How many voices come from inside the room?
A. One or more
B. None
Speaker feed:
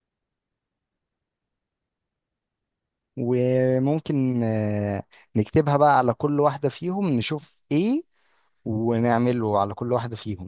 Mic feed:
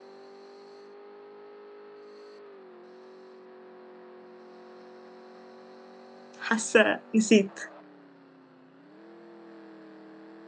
A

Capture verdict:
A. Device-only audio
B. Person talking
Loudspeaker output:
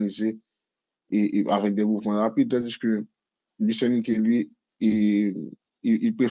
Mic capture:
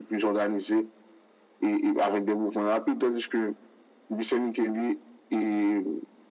A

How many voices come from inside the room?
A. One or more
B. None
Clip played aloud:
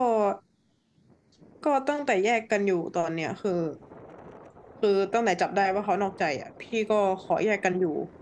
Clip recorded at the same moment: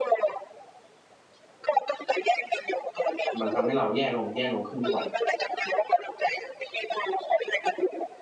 A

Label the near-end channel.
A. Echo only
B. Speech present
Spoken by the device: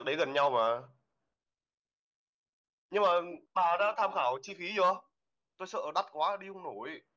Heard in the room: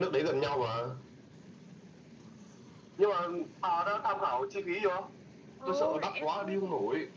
B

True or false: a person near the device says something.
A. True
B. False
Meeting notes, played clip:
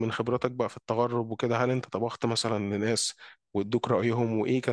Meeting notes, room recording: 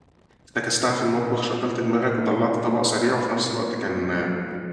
A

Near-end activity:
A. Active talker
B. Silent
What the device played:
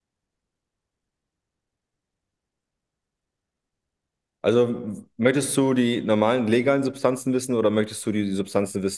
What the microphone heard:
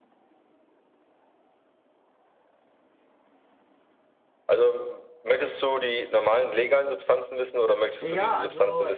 A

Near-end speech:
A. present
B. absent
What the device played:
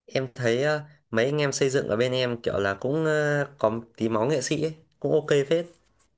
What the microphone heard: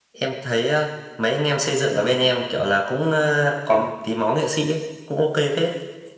B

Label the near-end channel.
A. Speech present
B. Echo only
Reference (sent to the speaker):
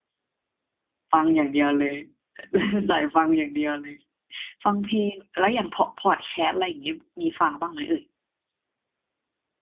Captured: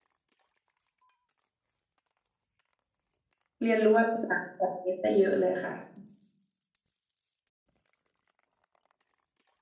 A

